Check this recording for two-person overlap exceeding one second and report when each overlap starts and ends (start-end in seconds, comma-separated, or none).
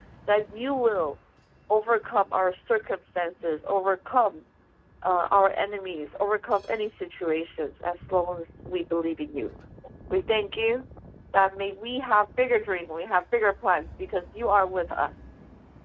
none